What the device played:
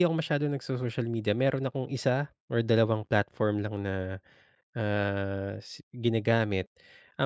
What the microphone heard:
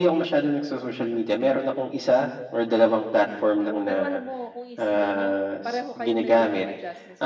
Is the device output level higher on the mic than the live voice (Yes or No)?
Yes